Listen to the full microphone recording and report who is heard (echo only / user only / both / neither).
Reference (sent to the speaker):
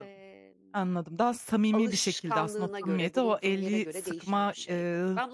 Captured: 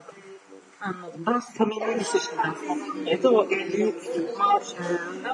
both